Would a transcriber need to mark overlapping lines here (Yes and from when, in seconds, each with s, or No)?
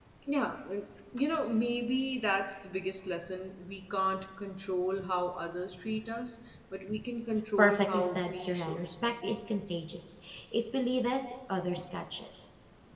Yes, from 7.6 s